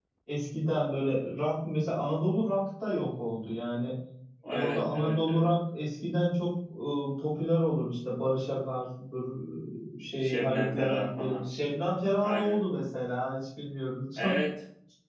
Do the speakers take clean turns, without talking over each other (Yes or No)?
No